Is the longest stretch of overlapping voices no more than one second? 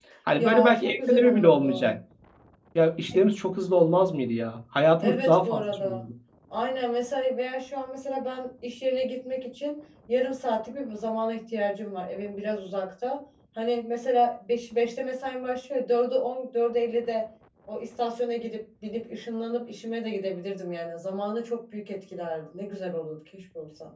No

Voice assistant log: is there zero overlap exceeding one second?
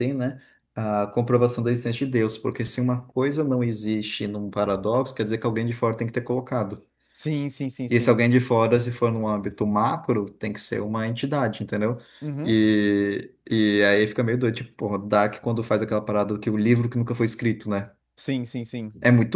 Yes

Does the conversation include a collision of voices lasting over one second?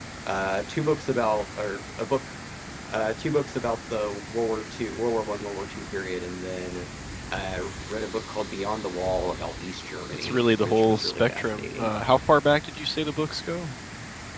Yes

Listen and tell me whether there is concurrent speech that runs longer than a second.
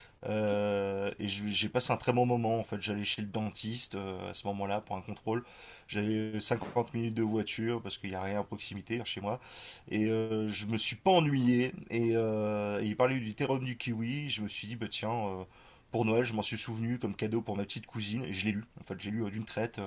No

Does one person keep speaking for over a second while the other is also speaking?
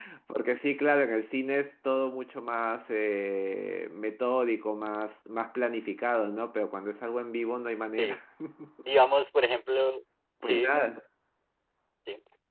No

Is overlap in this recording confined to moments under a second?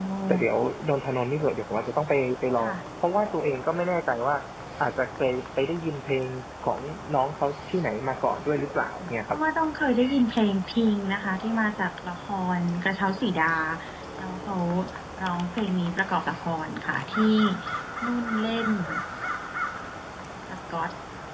Yes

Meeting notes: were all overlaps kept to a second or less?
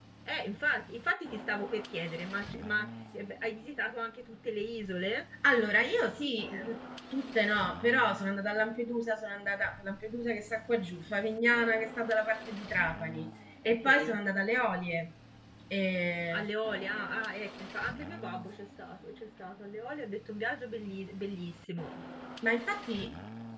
Yes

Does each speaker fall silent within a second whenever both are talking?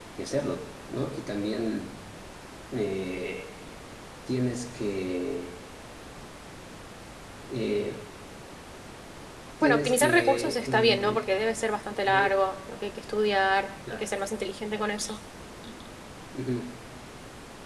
No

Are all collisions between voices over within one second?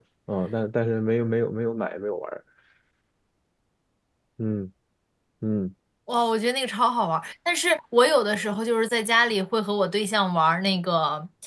Yes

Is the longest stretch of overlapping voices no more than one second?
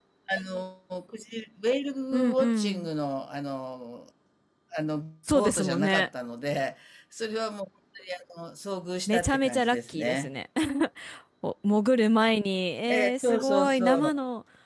No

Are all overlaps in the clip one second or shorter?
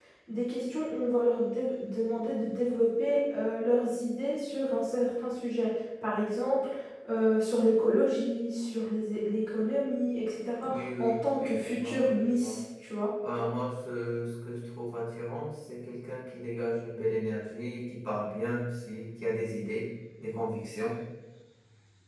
No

